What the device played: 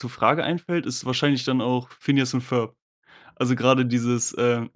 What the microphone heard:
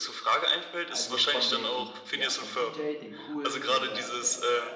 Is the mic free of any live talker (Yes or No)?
No